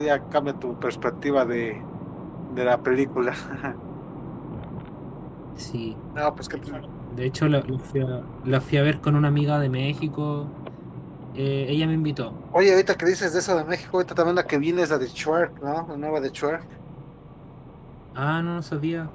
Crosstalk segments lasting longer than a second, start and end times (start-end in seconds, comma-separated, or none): none